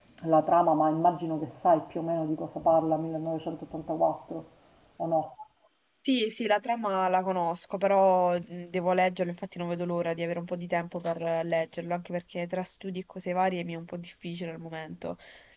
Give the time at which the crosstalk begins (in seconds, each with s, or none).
none